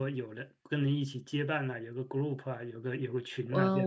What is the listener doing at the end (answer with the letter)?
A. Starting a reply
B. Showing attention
A